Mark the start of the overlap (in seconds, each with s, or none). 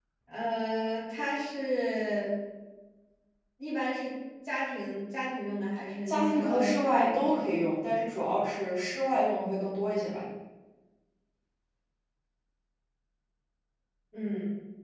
6.1 s